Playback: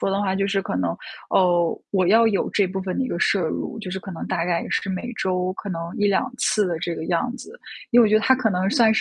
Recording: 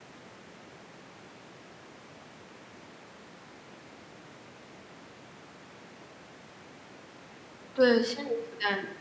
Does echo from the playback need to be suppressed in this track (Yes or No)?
No